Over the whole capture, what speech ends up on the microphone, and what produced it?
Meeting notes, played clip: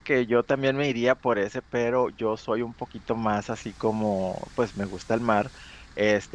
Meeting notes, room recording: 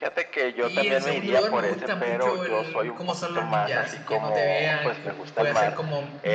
both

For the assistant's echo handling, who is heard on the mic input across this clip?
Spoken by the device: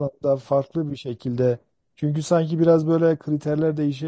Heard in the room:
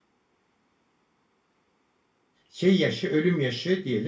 user only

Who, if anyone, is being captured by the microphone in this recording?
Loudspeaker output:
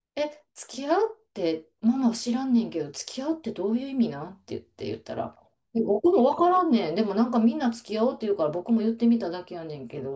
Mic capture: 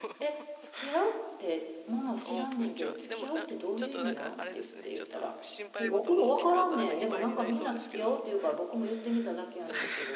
both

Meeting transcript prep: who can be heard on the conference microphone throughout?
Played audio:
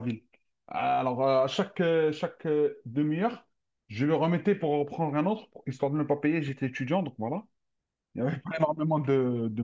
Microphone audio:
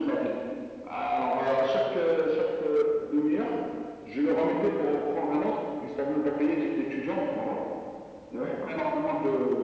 echo only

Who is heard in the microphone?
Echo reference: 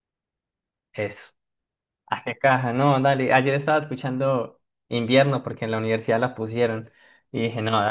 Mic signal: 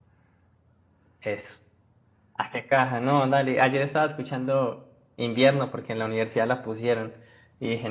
echo only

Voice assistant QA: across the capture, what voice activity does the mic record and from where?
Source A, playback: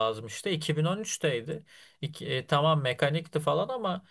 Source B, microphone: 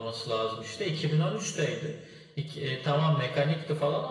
echo only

